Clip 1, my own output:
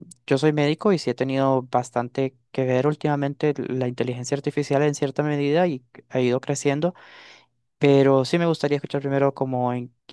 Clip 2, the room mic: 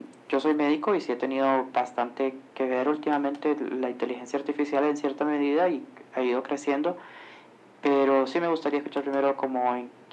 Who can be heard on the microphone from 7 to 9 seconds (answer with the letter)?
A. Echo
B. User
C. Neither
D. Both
A